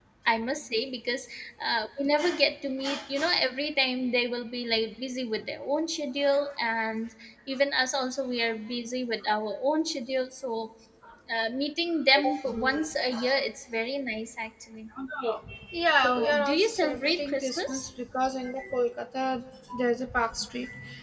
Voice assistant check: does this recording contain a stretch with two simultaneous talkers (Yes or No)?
Yes